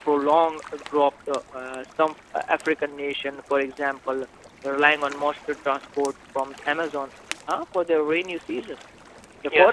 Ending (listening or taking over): listening